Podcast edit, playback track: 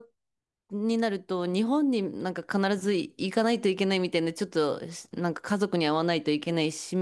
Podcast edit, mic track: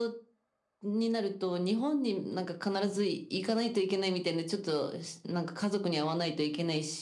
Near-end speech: none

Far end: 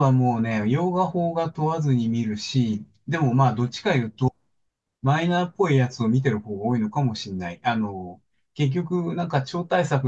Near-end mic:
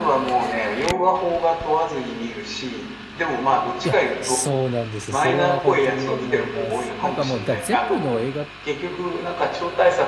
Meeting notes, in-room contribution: present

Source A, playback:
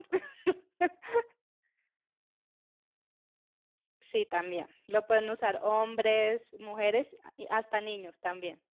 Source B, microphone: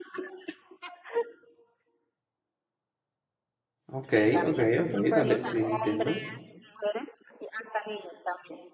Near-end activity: present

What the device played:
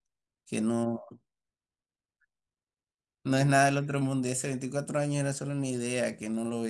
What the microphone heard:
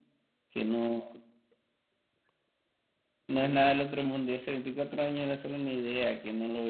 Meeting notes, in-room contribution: none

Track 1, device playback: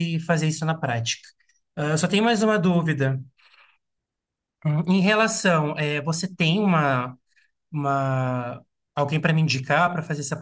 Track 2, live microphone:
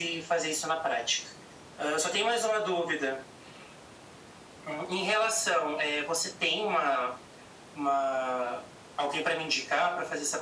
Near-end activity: none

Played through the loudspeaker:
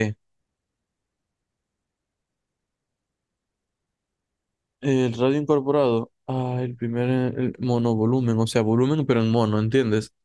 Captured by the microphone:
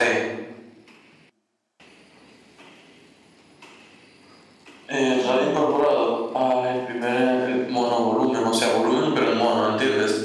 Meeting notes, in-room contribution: present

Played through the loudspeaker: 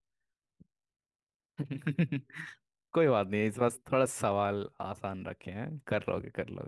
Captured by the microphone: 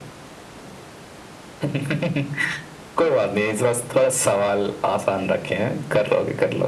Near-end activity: none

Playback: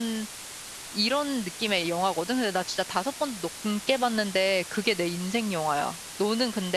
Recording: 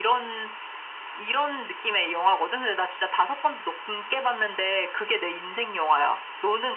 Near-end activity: none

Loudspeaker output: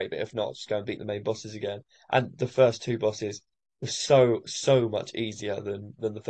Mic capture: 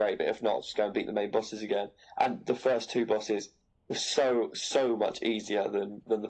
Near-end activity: none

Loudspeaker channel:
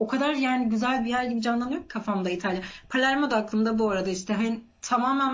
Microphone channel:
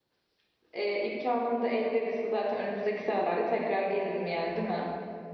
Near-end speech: present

